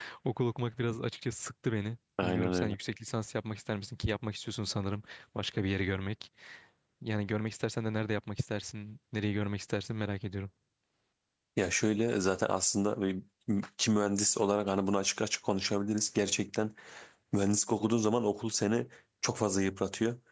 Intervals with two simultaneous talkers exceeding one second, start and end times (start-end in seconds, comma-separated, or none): none